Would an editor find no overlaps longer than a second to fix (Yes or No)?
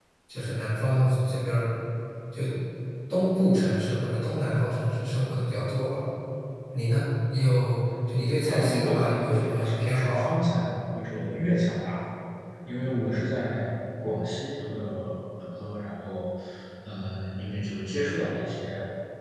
No